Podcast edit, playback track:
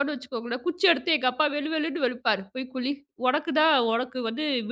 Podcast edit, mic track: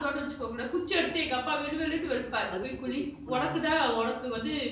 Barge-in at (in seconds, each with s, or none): 2.5 s